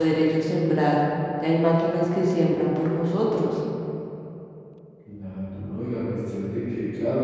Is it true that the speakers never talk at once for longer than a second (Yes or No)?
Yes